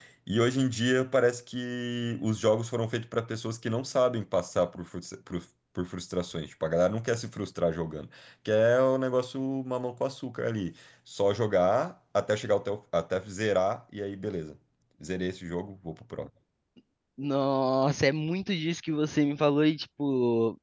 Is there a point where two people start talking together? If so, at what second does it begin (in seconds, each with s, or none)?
none